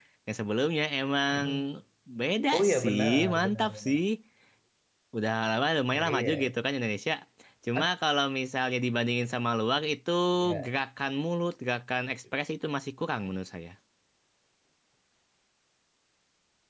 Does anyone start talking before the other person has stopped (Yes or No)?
Yes